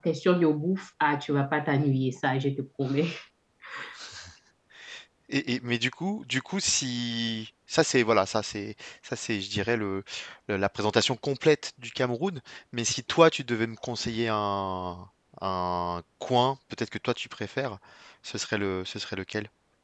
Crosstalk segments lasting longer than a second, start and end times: none

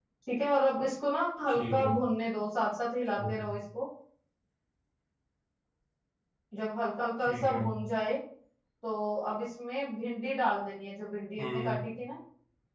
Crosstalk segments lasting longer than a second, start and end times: none

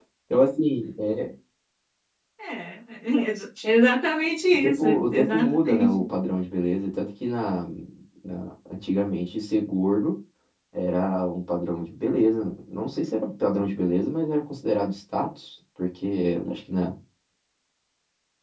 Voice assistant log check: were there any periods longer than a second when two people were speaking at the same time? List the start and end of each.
4.5-6.0

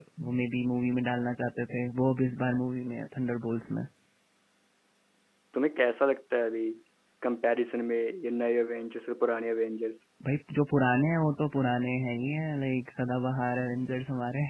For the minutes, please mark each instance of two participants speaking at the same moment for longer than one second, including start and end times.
none

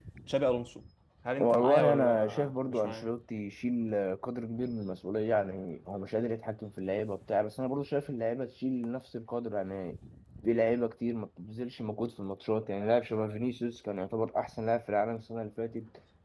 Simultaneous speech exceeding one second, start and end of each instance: 1.4-3.1

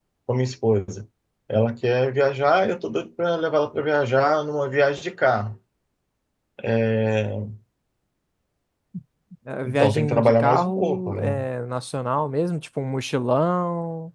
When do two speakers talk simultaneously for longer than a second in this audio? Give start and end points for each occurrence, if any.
9.6-11.4

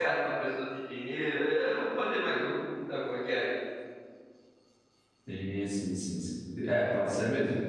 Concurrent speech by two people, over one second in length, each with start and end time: none

